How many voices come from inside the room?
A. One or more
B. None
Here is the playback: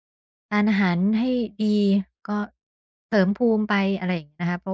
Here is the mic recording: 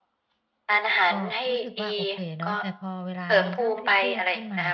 A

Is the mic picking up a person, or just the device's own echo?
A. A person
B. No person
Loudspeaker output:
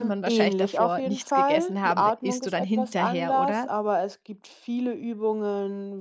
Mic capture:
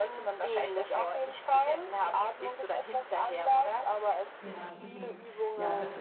A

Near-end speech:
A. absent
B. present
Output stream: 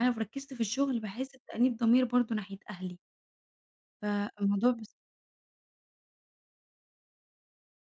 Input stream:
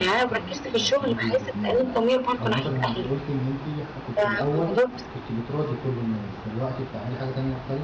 B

